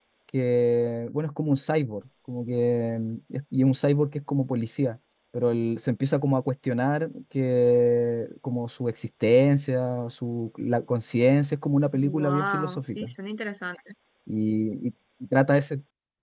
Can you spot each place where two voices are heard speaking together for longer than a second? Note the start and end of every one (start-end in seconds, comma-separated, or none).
11.9-13.1